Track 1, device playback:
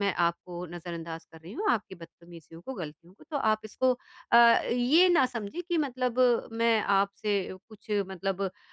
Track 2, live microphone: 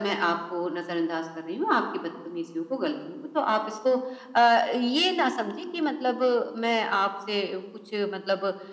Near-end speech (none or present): none